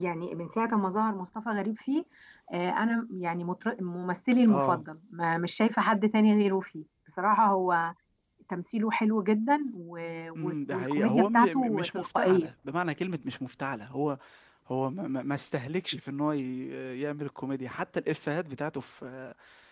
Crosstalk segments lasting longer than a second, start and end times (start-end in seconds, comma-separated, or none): 10.4-12.5